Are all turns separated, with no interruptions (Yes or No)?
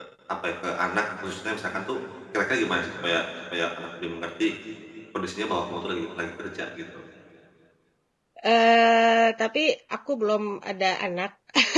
Yes